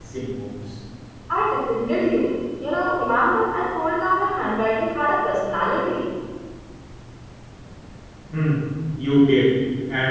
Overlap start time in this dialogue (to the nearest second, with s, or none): none